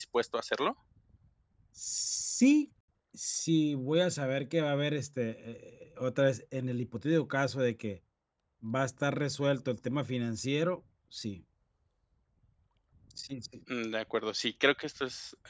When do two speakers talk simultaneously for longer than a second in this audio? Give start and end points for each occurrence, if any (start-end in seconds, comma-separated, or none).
none